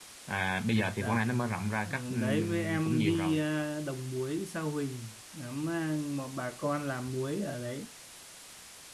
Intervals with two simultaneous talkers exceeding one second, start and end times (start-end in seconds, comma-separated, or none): 1.8-3.4